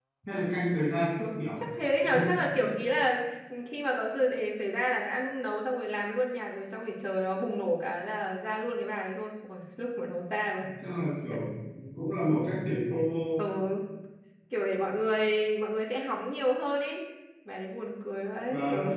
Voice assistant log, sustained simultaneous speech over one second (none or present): none